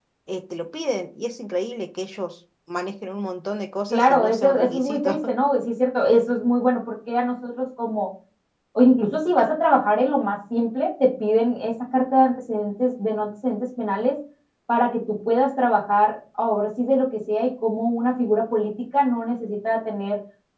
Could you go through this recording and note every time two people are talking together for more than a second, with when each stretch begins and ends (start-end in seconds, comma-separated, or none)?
3.9-5.2